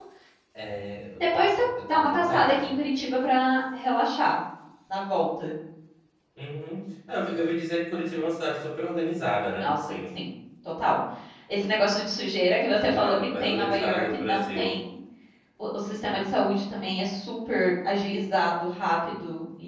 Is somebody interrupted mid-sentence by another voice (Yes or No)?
Yes